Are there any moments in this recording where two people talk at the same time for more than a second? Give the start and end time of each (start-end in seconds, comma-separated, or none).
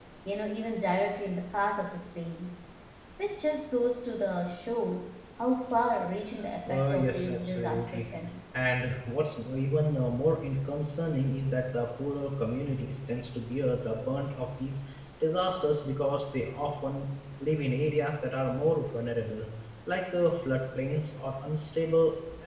6.7-8.1